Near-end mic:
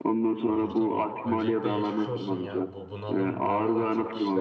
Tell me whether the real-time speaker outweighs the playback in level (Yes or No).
No